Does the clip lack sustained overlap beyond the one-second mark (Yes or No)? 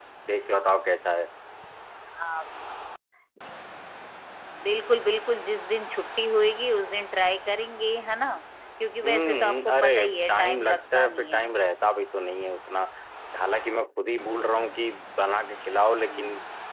No